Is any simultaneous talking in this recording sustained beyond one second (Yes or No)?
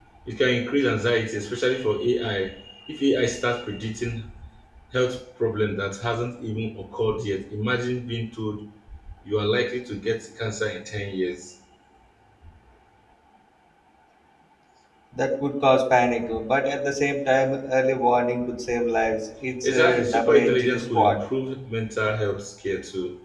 Yes